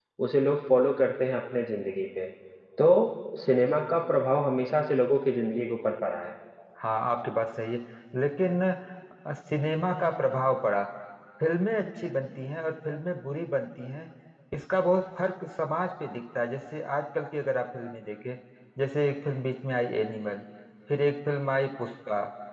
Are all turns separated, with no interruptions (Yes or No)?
Yes